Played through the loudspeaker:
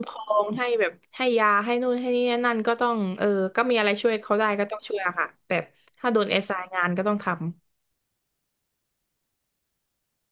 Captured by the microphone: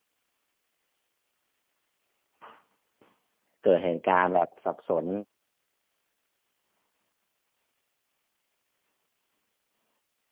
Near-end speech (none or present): present